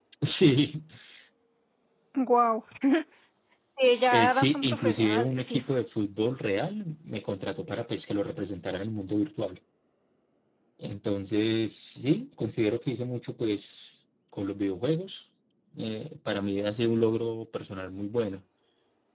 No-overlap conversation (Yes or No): No